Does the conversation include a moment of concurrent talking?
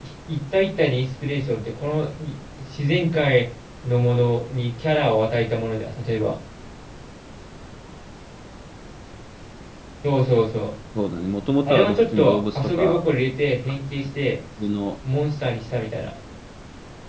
Yes, from 11.7 s

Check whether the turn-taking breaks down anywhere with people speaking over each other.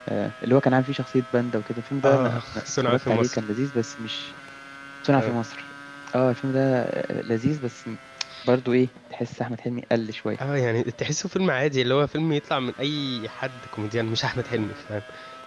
Yes, from 2.0 s

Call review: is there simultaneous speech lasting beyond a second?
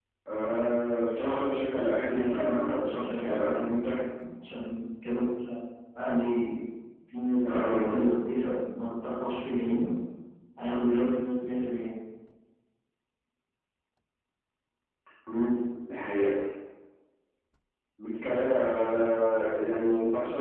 Yes, from 2.1 s

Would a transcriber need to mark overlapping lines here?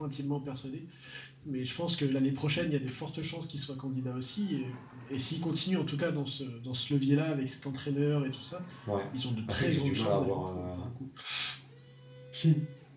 Yes, from 9.5 s

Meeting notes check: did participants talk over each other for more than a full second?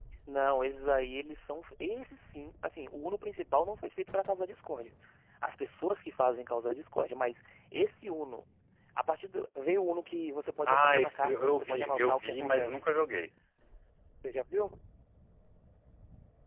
Yes, from 10.6 s

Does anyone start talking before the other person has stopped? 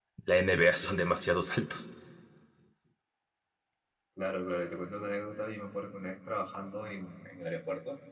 No

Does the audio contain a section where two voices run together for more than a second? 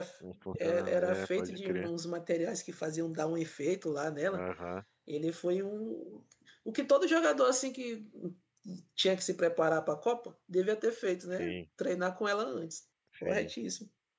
Yes, from 0.6 s

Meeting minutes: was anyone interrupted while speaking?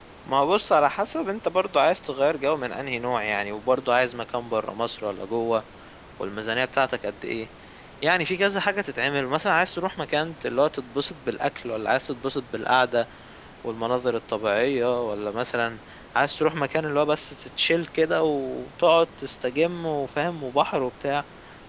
No

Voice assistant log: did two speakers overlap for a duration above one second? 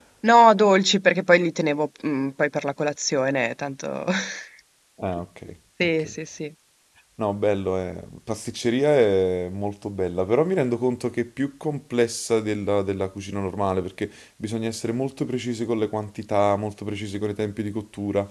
No

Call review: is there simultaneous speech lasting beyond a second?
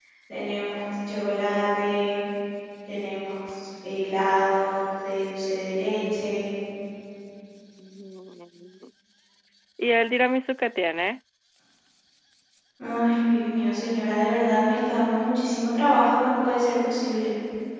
No

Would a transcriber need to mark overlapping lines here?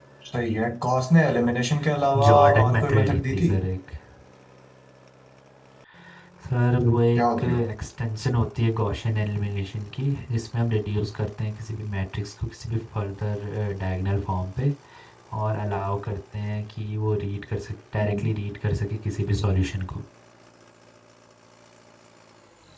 Yes, from 2.3 s

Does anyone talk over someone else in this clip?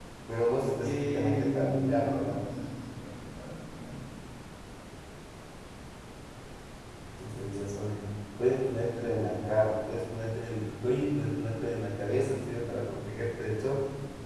Yes, from 0.8 s

